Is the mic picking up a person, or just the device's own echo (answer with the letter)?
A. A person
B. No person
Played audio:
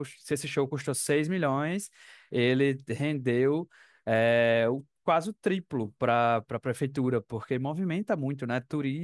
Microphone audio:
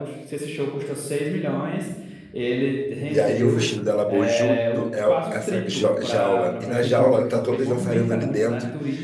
A